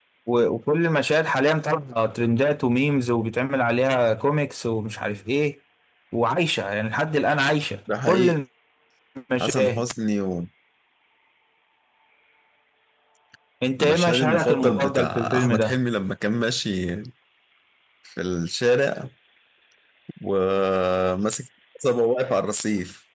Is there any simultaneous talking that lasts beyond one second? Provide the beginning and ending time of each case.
13.8-15.8

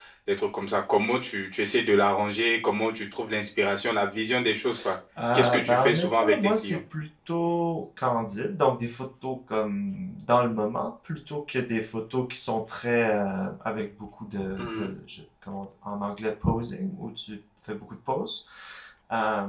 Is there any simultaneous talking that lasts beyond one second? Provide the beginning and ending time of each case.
5.3-6.8

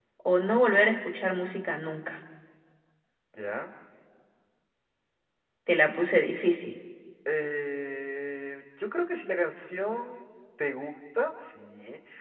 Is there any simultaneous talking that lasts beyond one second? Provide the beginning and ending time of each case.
none

